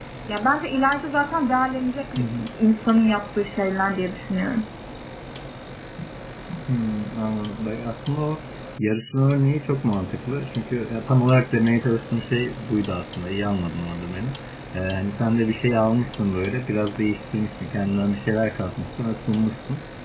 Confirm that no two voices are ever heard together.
Yes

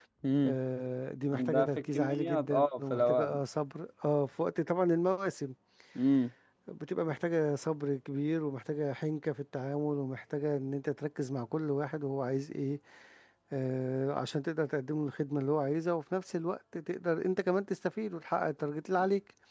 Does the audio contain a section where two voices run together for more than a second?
Yes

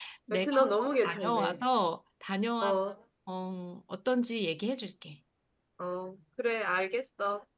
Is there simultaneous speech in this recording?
Yes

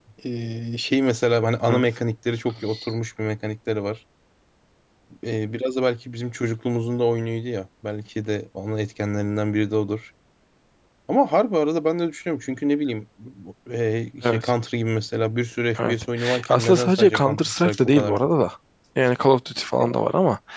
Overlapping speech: Yes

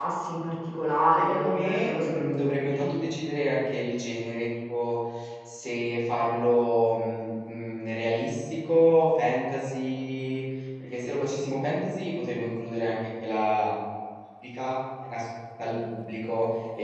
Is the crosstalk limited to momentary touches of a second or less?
No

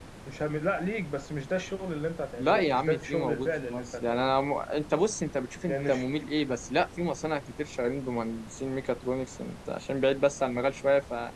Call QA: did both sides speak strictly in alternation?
No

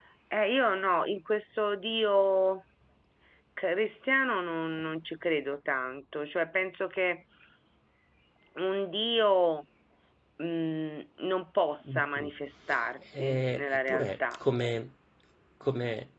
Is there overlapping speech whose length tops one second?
Yes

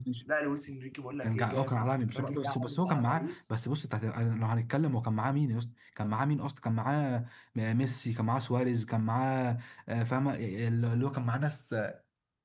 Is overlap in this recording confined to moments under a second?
No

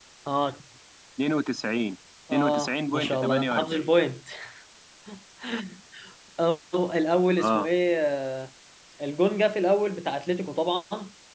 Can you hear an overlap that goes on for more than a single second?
Yes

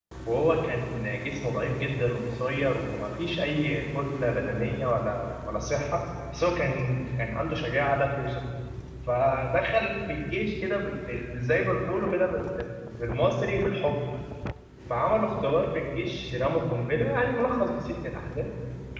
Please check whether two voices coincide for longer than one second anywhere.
No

